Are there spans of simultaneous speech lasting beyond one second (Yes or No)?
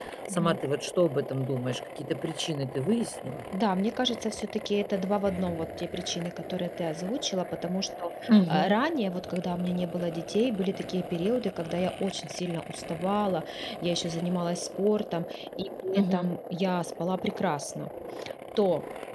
No